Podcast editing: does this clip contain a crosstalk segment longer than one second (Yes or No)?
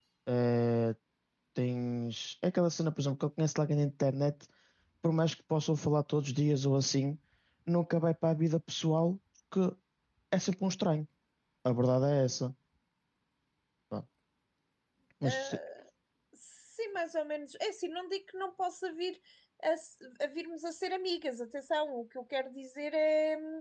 No